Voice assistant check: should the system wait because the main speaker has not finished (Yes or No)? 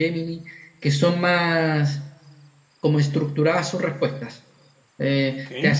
Yes